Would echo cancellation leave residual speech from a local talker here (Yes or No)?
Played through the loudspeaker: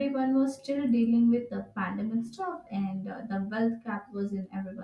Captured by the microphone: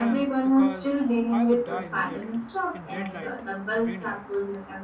Yes